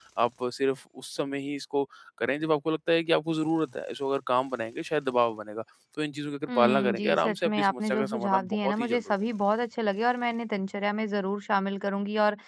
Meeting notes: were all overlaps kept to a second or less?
No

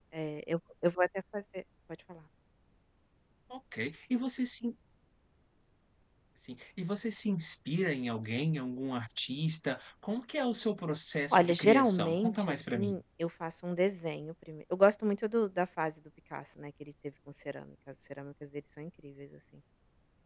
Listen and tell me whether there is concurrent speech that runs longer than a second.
Yes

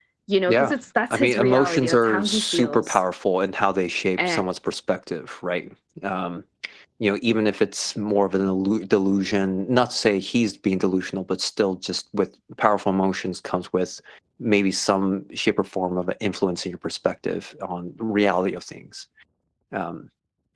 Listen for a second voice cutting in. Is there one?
Yes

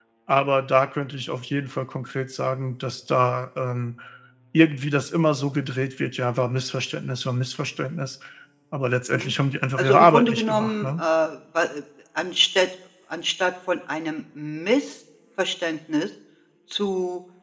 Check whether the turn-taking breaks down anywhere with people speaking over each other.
Yes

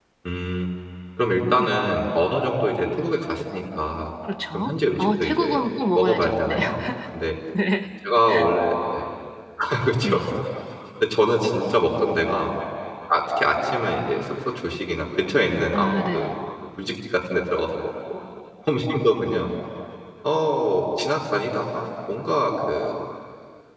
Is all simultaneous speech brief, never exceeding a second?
No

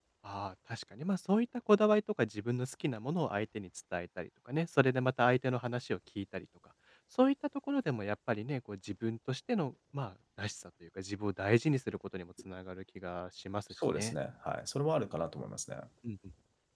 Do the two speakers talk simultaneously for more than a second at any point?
No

